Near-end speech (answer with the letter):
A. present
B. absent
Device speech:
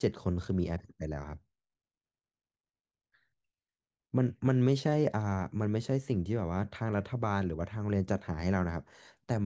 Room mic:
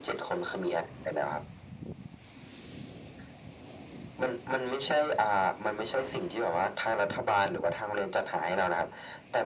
B